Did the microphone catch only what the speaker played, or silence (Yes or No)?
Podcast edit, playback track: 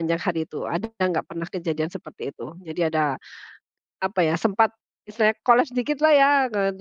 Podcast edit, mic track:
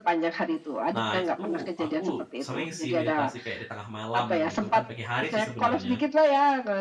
No